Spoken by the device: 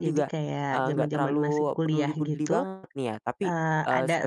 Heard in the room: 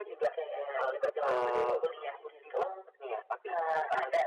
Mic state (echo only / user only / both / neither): both